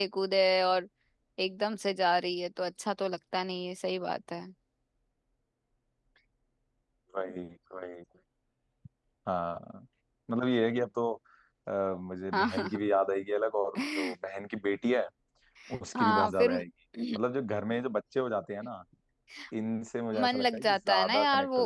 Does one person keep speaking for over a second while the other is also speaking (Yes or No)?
Yes